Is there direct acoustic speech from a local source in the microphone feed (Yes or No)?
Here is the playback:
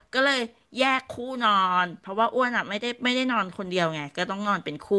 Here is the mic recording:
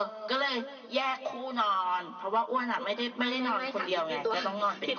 Yes